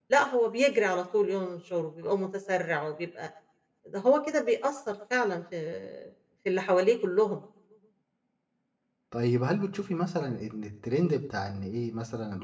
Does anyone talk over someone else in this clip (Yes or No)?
No